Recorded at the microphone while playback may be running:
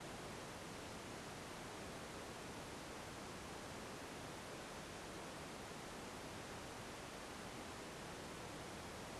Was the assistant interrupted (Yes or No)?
No